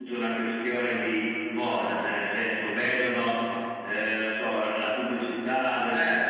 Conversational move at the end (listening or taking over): listening